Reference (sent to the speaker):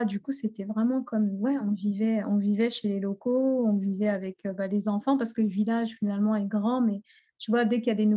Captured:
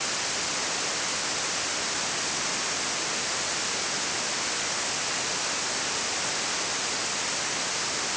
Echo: none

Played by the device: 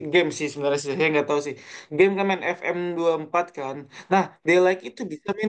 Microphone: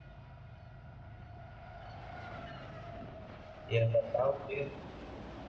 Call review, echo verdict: none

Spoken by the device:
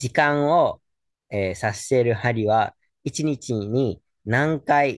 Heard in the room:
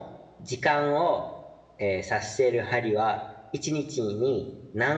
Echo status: present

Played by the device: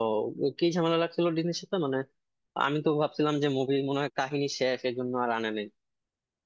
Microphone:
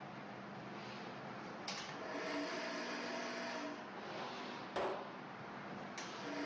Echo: none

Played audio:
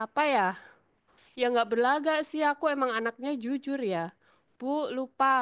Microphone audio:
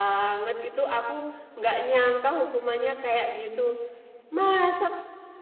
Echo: none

